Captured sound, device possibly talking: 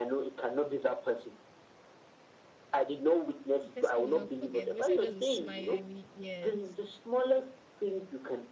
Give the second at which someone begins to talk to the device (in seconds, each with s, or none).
3.6 s